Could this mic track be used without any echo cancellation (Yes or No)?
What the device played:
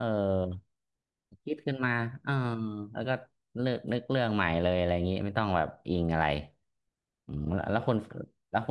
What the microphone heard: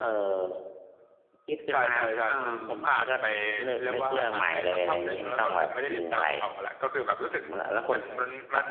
No